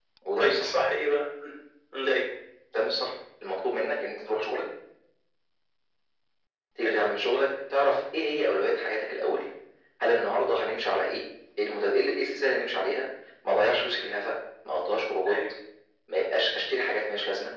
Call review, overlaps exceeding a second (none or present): none